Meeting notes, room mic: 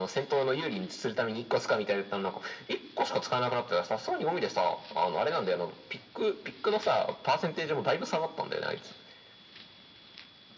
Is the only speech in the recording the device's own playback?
Yes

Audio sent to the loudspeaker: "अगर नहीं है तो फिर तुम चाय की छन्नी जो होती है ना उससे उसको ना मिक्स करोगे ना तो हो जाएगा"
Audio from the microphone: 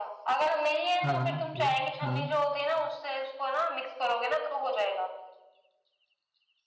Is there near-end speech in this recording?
Yes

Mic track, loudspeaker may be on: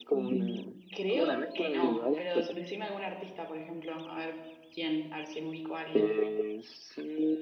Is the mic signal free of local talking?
No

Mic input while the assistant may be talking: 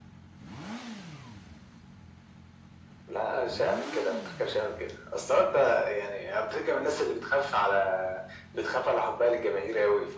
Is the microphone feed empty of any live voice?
Yes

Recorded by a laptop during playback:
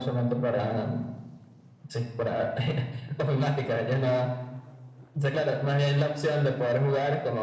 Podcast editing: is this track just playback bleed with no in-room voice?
Yes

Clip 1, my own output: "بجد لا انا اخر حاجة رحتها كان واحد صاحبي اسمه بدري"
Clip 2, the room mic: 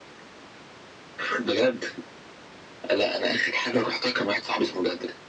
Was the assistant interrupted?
No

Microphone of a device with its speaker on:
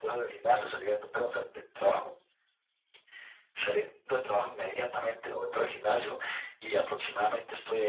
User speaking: No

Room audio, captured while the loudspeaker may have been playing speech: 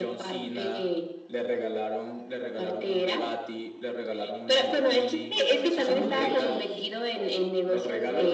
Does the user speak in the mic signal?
Yes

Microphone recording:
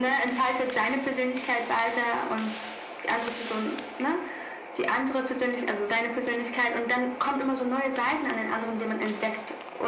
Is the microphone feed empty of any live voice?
Yes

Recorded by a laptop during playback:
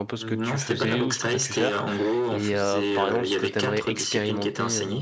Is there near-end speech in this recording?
Yes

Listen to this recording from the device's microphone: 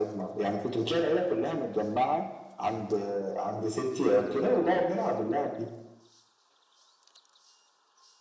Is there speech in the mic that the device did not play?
No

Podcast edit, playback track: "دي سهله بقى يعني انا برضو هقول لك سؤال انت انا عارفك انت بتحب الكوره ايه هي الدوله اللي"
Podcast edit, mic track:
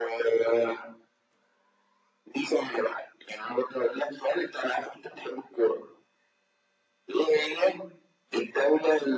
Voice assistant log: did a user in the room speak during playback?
No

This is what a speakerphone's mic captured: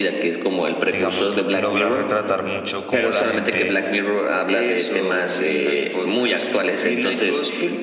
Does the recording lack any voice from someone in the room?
No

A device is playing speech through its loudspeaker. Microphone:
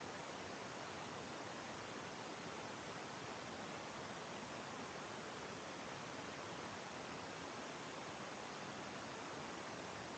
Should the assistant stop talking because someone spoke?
No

